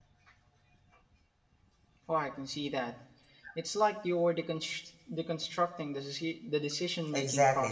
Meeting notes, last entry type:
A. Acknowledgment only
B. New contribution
B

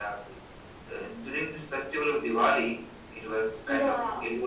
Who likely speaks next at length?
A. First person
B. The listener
A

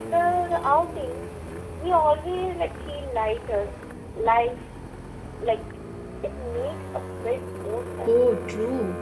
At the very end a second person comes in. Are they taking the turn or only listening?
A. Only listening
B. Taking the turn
B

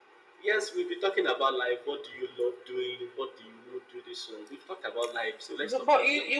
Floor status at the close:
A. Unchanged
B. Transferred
B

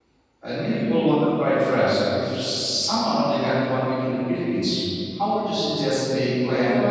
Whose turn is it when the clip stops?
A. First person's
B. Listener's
B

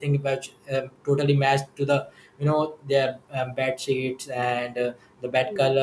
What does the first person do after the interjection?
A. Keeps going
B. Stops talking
A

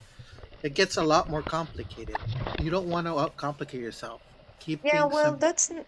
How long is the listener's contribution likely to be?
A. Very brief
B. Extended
B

